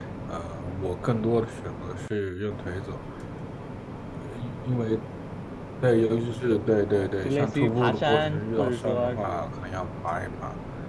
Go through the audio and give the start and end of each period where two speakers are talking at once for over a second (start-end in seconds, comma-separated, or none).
6.8-9.4